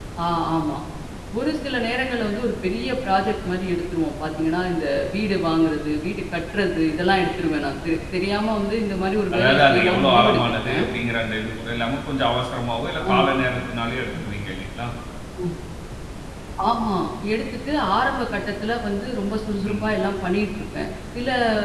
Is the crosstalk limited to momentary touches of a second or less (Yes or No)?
No